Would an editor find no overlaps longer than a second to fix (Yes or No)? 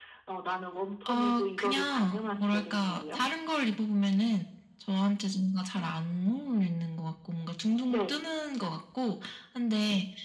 No